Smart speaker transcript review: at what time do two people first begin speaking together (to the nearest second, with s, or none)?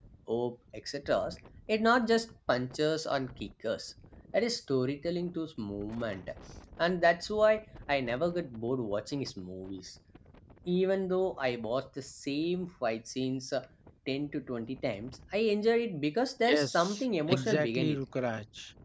16 s